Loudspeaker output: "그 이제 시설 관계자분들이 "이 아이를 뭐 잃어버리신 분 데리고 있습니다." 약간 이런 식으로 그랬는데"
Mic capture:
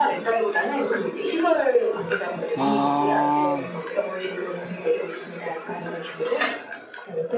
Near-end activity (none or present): present